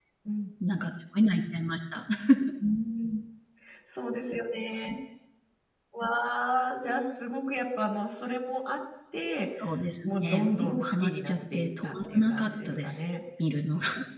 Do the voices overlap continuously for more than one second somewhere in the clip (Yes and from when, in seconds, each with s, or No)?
Yes, from 10.1 s